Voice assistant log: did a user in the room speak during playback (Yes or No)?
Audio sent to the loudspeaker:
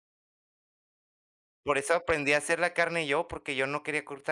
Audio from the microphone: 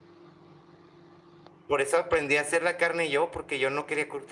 No